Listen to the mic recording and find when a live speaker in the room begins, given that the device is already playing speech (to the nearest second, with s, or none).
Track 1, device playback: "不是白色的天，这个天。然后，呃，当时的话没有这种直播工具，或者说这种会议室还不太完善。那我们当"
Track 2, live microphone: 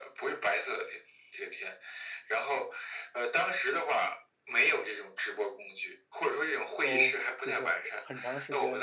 7 s